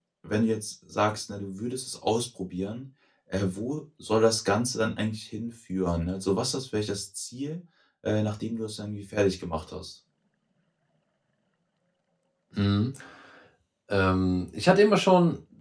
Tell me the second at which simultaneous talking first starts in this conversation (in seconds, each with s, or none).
none